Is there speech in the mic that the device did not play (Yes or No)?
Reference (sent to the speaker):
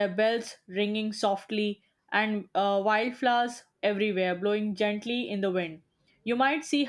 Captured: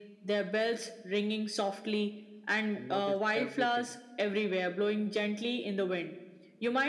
Yes